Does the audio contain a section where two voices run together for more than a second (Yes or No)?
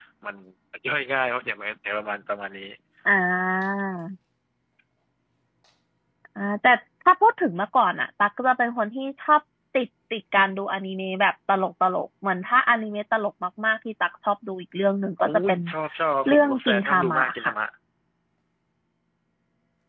Yes